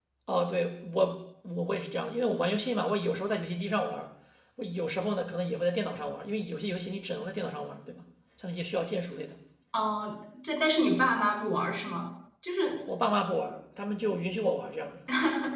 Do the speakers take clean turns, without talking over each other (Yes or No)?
Yes